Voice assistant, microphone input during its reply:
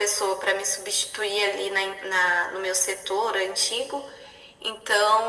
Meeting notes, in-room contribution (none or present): none